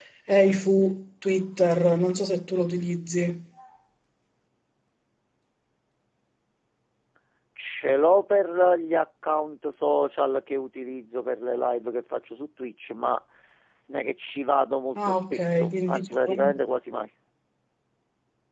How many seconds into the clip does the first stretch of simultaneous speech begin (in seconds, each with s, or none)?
14.9 s